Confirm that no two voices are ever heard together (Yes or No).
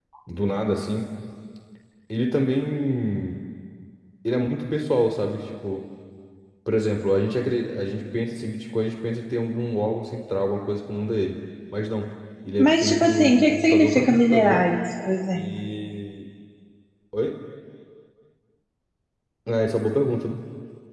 No